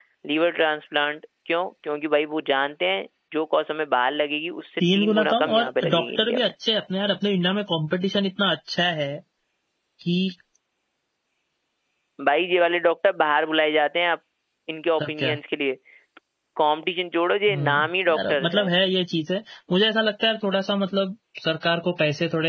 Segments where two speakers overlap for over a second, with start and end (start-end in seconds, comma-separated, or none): 4.9-6.5, 17.5-18.7